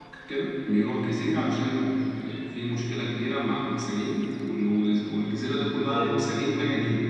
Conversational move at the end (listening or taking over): listening